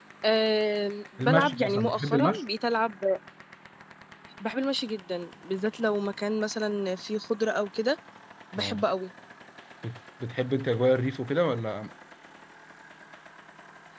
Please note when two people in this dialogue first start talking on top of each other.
1.2 s

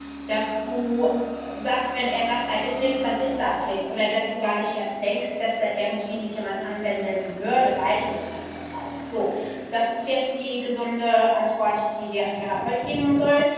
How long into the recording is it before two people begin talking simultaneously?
none

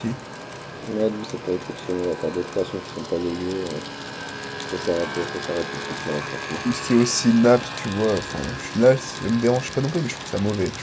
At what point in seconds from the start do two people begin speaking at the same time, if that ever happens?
none

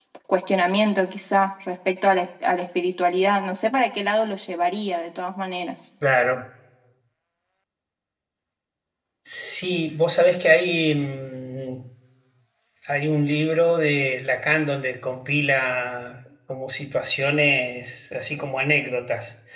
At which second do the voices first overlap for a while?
none

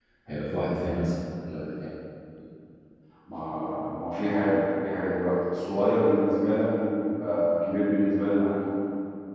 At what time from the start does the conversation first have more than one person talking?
none

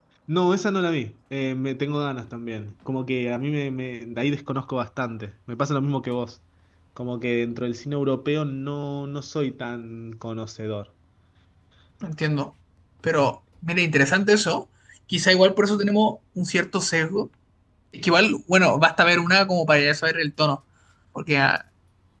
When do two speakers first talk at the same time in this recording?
none

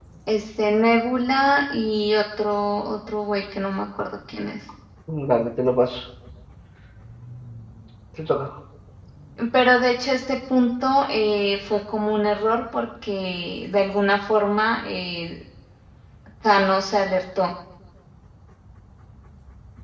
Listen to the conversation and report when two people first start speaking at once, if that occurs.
none

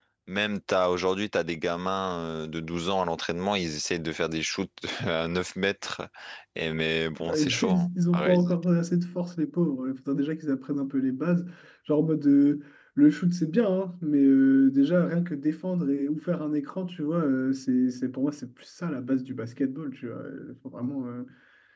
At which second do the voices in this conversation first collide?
7.2 s

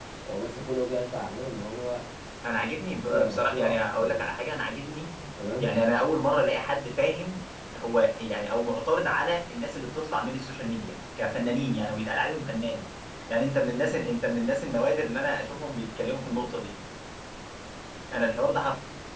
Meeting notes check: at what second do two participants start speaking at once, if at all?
2.4 s

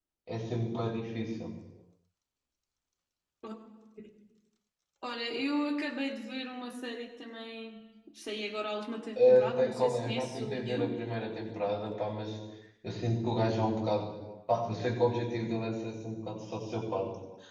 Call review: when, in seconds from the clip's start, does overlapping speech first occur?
9.2 s

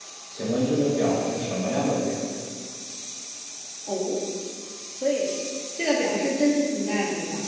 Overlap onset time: none

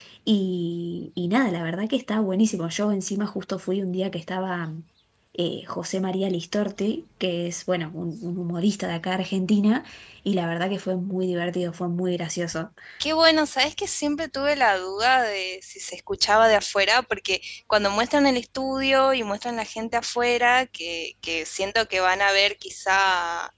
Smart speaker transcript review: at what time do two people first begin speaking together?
none

